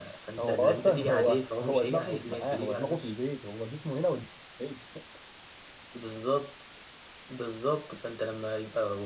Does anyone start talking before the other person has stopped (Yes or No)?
Yes